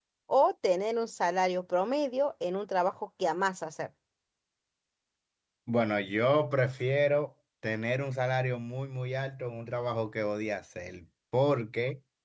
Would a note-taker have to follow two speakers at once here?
No

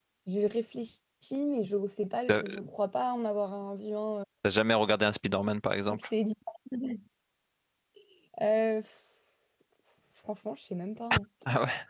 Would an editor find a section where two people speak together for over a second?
No

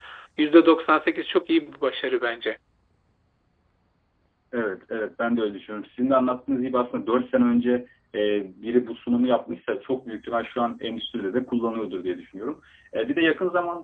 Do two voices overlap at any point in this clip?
No

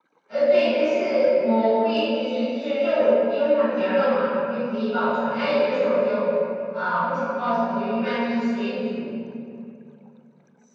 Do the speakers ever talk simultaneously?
No

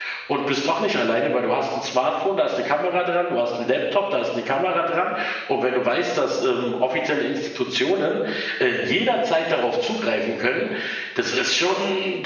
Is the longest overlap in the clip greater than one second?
No

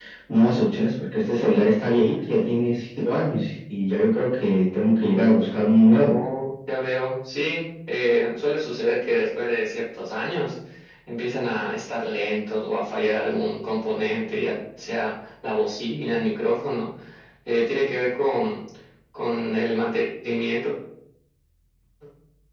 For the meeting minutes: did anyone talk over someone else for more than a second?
No

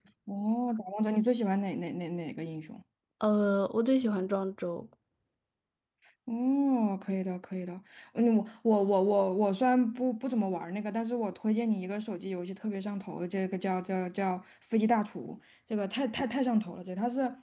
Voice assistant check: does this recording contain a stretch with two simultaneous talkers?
No

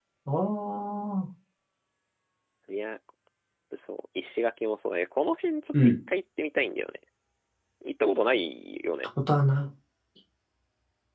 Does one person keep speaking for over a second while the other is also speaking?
No

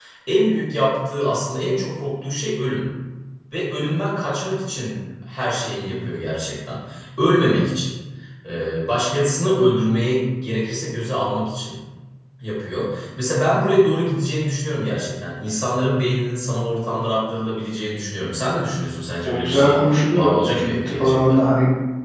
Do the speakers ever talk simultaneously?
Yes, from 19.2 s

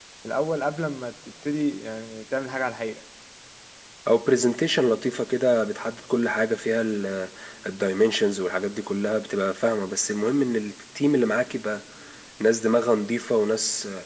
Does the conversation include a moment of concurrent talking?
No

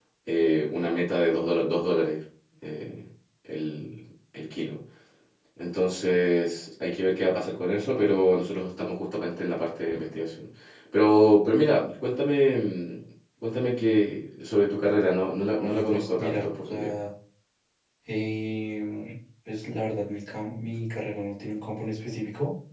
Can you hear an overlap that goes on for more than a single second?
Yes, from 15.5 s

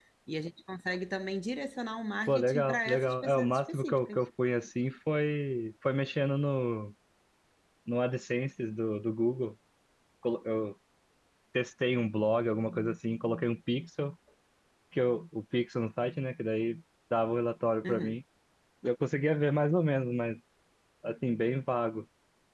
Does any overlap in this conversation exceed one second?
Yes, from 2.3 s

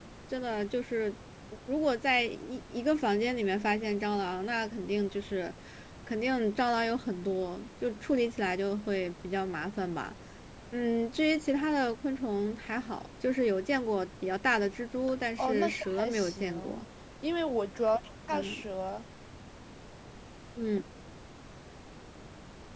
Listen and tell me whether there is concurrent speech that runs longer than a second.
Yes, from 15.4 s

